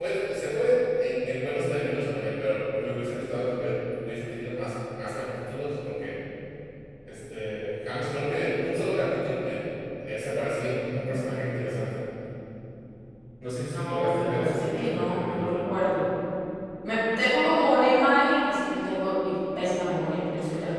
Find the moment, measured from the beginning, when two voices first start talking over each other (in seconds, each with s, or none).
13.5 s